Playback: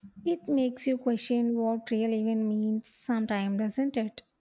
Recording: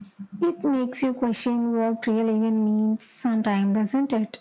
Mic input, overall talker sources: echo only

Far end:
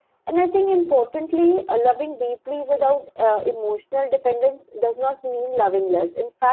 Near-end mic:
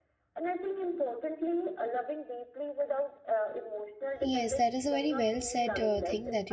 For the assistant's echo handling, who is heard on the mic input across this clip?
both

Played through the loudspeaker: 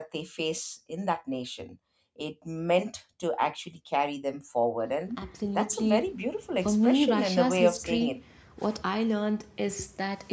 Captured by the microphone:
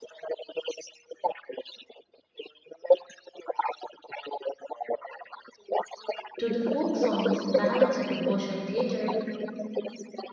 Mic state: both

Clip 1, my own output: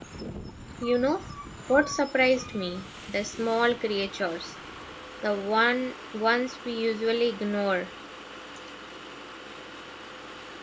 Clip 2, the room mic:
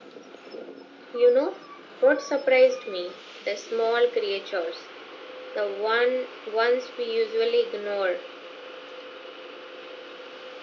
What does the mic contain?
echo only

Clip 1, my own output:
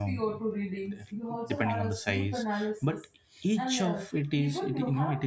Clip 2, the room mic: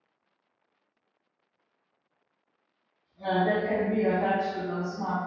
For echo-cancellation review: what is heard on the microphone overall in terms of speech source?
user only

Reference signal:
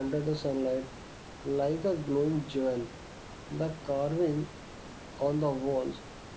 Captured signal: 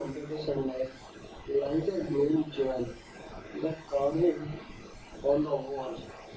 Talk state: echo only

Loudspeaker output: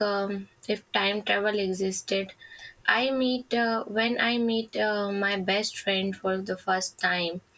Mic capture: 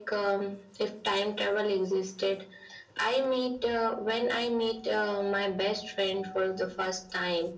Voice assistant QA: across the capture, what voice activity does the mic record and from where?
echo only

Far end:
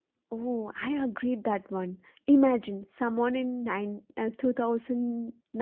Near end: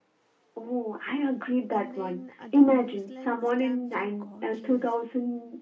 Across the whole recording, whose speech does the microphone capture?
both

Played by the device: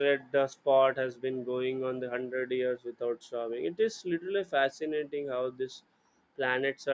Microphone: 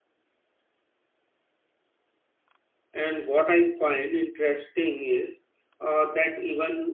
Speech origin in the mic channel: user only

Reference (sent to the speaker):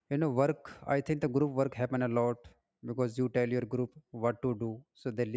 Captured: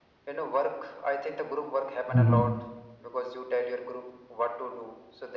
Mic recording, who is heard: both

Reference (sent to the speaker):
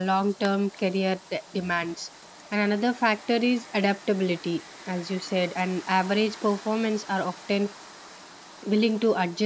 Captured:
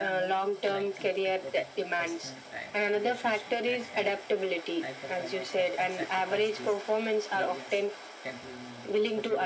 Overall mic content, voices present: both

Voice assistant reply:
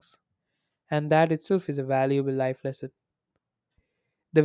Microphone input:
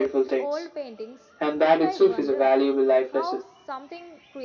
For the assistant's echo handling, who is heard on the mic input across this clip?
both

